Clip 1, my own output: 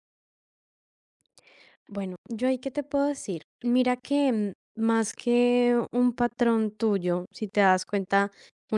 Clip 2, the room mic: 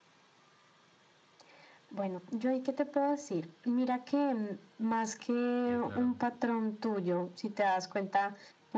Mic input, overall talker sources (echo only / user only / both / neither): both